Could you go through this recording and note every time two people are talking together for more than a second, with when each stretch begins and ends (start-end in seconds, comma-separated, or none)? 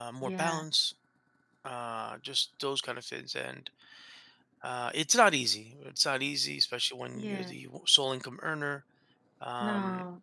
none